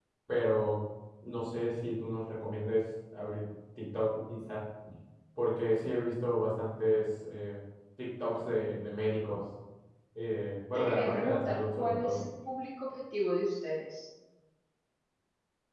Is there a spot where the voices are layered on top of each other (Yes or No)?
Yes